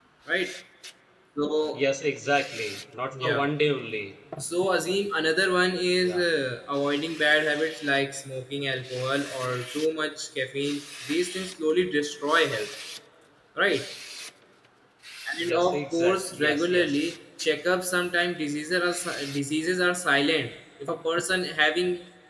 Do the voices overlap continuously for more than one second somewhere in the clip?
Yes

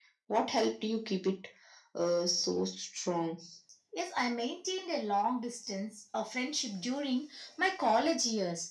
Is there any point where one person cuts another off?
No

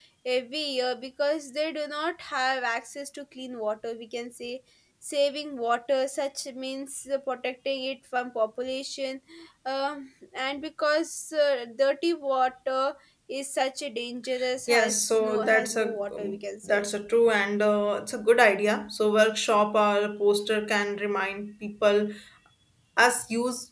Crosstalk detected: Yes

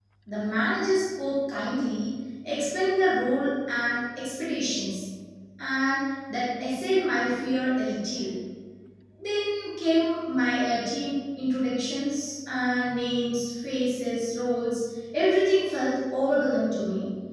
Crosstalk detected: No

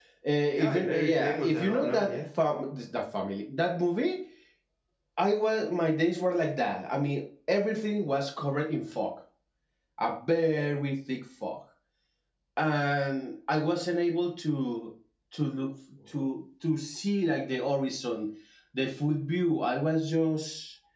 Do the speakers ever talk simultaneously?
Yes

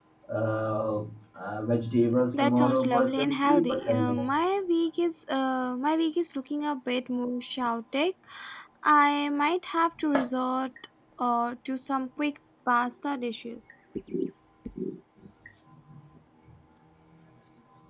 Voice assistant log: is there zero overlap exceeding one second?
No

